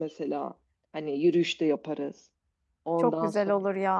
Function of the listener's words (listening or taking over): taking over